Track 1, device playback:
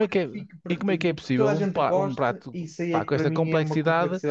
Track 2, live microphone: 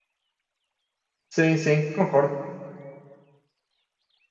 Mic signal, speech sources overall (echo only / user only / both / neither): user only